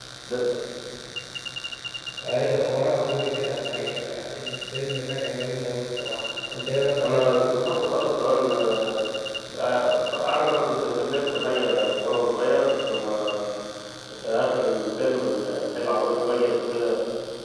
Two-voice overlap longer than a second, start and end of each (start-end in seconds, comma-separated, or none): none